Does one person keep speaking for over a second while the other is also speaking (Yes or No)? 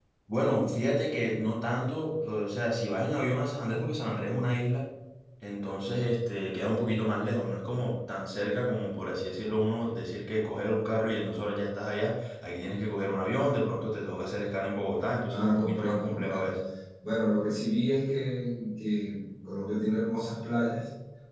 Yes